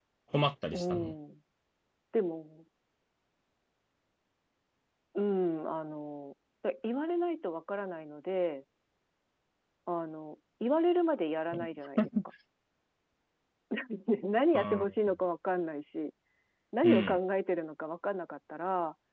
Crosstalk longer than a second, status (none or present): none